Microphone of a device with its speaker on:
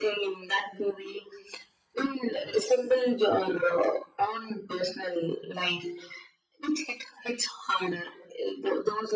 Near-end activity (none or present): none